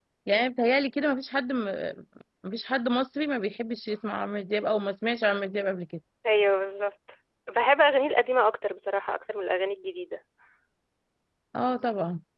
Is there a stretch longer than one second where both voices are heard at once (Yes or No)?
No